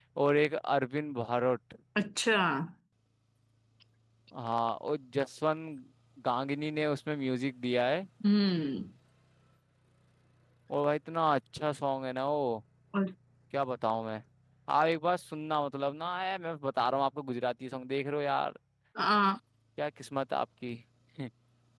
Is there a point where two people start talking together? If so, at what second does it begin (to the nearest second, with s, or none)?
none